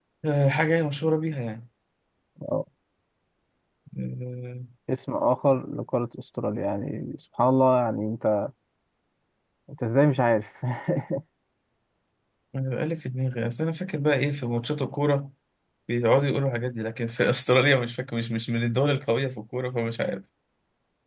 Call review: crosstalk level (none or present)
none